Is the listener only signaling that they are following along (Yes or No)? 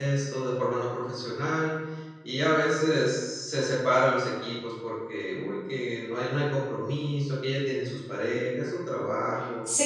No